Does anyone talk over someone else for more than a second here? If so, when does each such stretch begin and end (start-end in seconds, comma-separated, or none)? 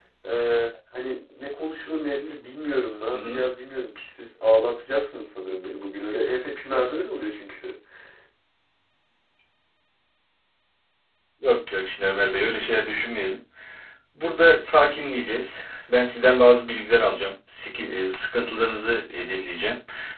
none